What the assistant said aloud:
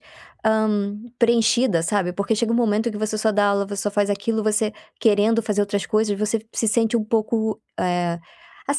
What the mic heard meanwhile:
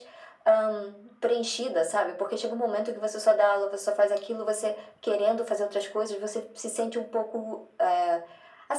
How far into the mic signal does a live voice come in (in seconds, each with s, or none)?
none